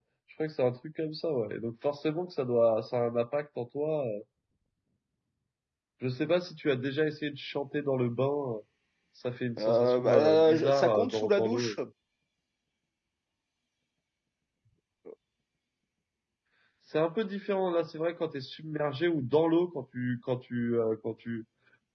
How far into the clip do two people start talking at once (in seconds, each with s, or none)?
9.6 s